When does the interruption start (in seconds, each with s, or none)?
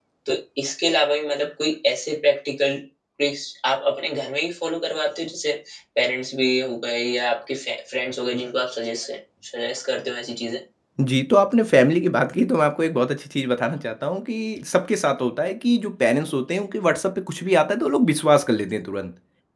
none